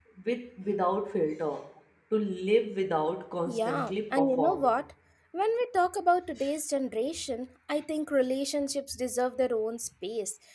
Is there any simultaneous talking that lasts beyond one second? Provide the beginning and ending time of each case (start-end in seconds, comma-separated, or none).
3.5-4.8